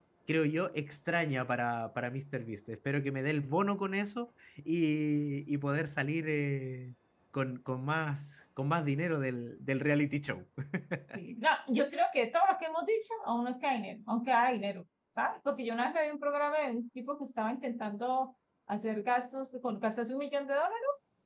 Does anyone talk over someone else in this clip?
No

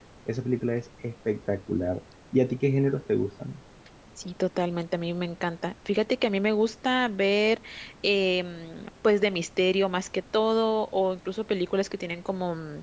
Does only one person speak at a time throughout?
Yes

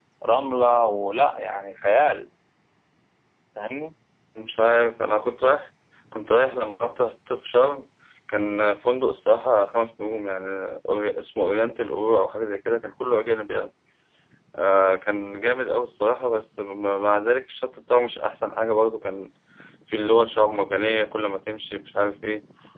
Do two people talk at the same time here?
No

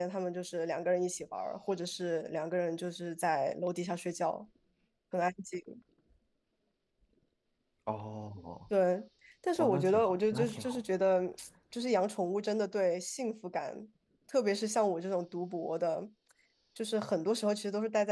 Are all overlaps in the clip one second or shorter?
No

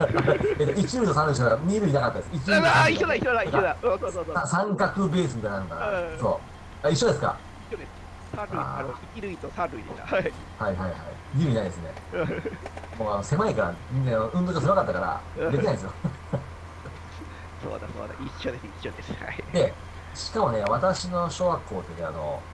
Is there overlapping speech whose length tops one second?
Yes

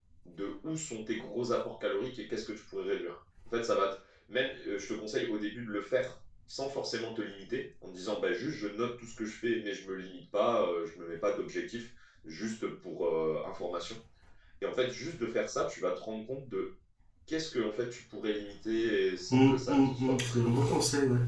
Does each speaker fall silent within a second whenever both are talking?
No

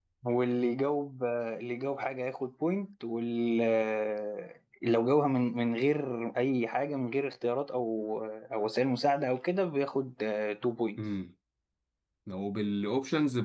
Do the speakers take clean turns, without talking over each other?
Yes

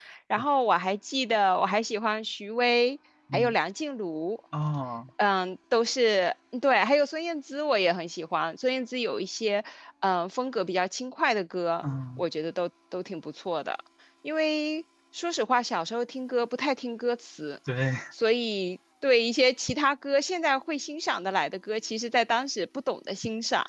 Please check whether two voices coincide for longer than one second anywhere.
No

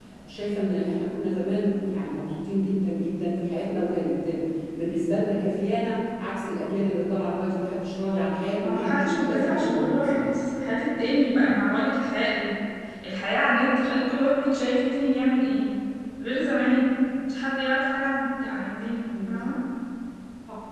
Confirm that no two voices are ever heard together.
No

